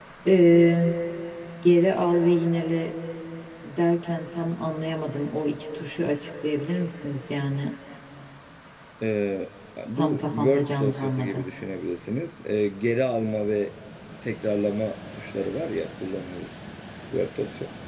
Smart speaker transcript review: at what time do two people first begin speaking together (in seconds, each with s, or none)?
10.0 s